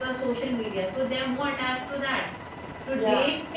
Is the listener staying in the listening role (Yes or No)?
Yes